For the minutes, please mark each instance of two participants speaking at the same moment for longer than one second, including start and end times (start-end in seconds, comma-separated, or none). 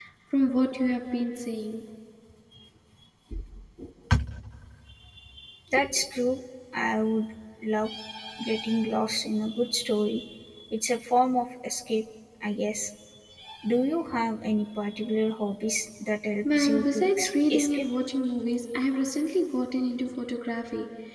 16.4-17.9